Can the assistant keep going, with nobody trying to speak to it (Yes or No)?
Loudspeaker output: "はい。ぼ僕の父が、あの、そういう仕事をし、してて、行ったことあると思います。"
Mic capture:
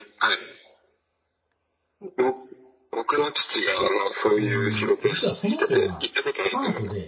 No